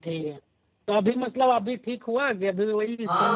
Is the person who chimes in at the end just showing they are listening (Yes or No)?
No